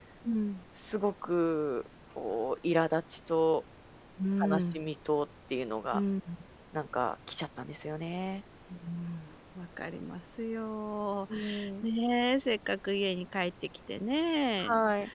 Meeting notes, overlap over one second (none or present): none